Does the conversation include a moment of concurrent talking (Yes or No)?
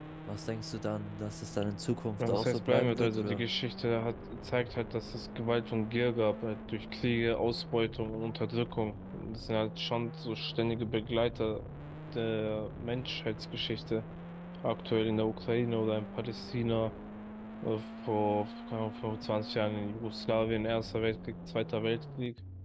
Yes